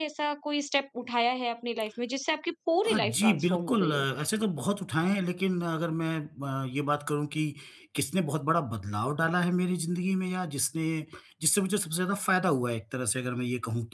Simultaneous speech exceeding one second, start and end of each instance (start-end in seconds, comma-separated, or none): 2.9-4.0